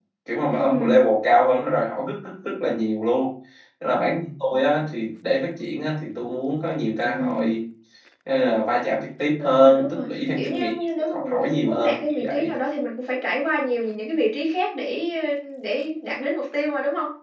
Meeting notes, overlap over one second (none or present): present